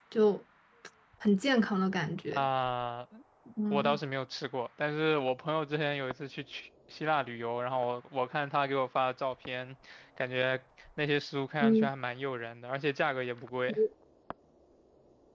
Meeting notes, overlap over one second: none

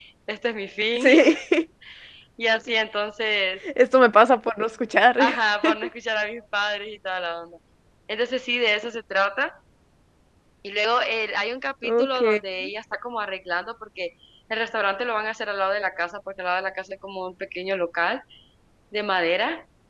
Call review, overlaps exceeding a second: none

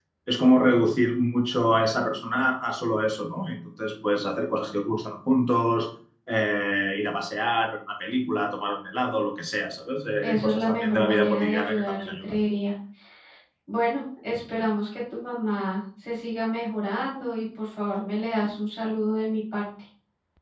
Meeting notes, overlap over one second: present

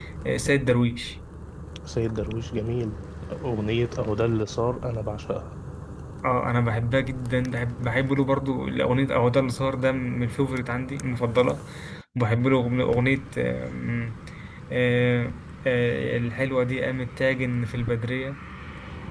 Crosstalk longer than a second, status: none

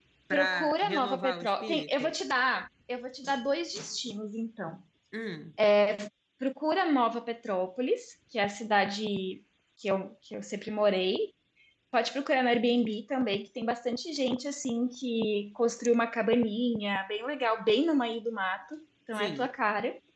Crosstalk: present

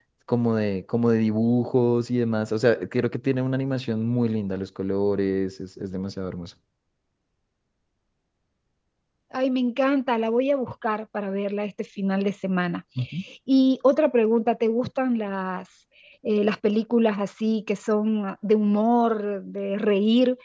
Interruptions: none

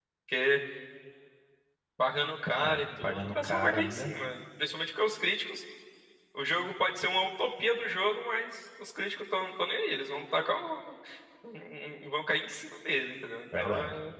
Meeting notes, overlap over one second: present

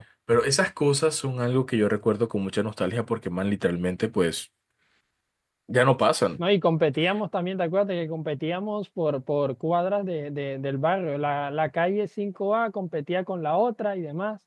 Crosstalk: none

